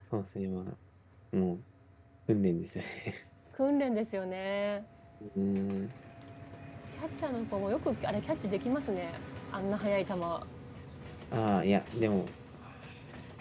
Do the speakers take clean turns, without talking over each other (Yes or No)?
Yes